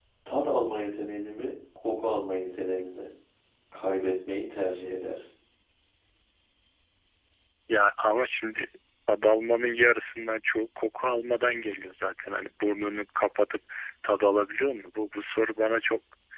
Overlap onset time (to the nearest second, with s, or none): none